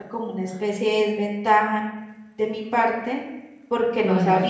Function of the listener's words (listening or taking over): listening